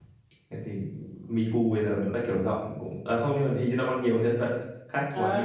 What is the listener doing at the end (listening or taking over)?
taking over